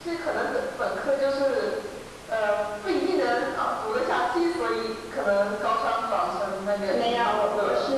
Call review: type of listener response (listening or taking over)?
taking over